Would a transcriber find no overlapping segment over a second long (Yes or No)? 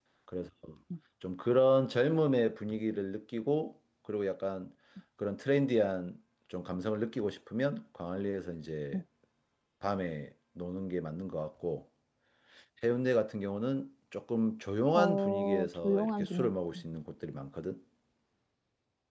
No